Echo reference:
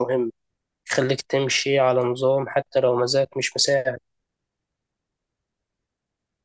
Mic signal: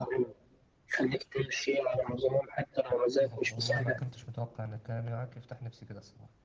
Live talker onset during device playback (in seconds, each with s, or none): 3.2 s